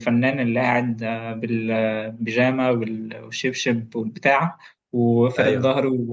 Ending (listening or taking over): listening